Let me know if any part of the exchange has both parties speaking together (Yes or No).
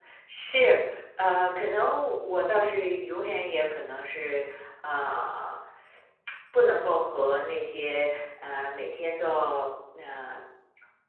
No